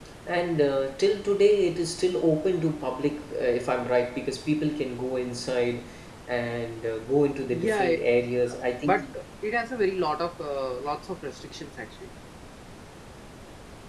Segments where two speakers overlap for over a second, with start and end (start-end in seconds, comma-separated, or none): none